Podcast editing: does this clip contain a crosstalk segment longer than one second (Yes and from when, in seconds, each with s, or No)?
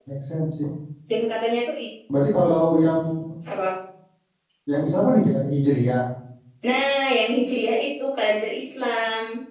No